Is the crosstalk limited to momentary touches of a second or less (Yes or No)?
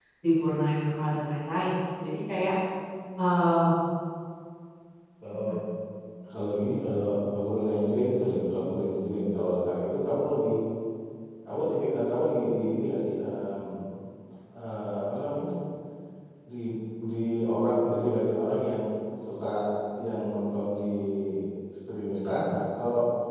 Yes